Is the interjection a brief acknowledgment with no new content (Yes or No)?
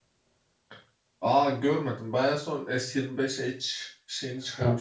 No